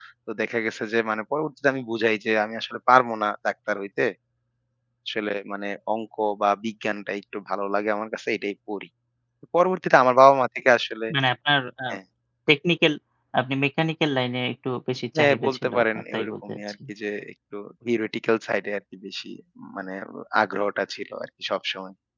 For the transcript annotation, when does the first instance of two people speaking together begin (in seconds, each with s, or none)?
15.2 s